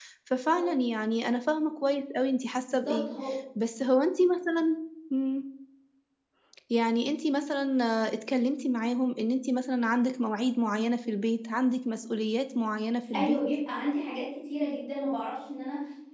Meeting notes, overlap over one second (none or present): none